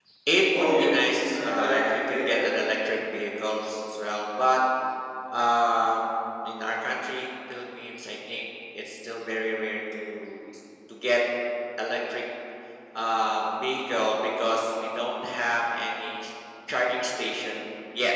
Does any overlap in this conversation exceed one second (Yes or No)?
Yes